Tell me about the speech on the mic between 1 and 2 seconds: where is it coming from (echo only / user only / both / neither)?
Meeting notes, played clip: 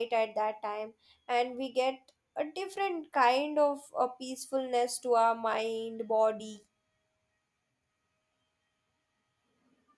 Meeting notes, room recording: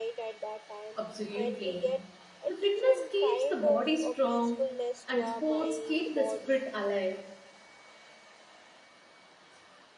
both